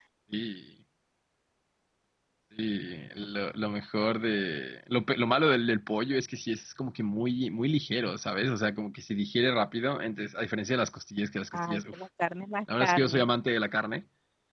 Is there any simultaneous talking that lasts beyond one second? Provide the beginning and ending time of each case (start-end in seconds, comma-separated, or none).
none